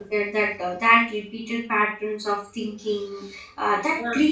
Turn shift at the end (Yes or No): No